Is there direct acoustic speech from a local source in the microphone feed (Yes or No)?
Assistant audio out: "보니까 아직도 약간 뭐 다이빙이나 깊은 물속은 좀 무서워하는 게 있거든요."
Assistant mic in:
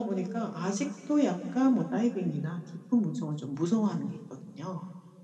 No